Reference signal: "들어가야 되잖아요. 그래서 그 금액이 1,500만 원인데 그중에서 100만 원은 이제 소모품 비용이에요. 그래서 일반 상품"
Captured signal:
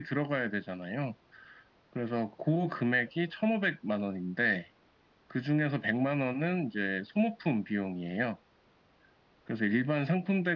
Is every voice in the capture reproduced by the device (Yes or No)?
Yes